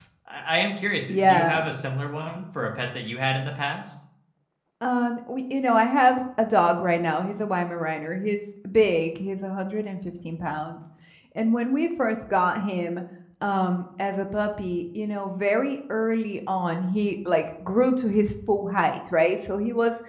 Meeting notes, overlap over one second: none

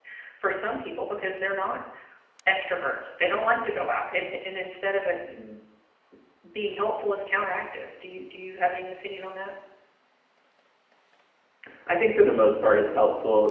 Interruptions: none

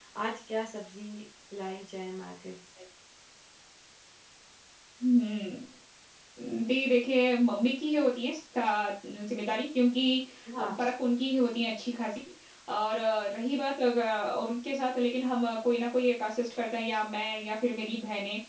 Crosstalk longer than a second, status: none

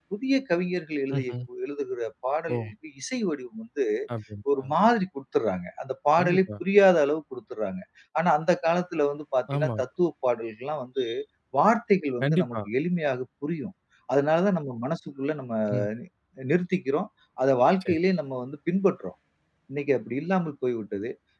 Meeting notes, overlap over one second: none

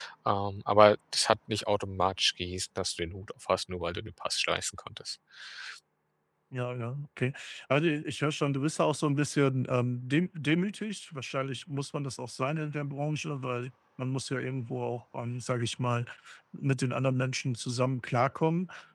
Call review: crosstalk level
none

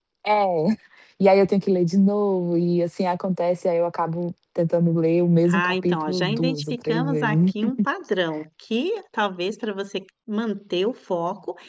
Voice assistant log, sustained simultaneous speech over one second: present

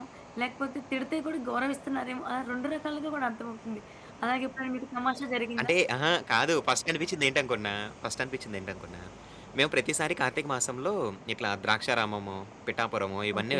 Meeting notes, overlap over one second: none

